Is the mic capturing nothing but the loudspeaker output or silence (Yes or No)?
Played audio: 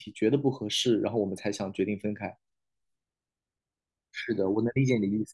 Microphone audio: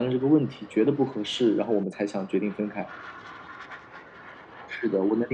Yes